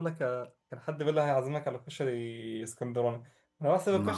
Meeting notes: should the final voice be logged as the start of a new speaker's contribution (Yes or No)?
No